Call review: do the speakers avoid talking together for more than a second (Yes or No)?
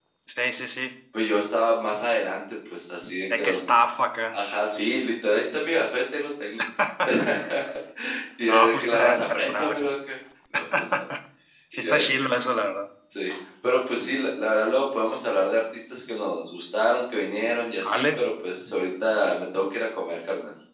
No